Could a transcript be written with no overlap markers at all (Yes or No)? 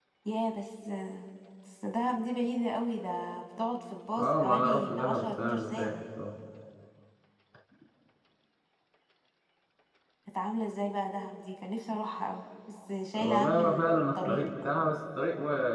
No